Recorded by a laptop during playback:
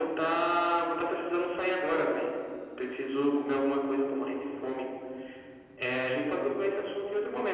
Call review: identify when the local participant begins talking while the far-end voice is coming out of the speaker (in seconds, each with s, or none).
none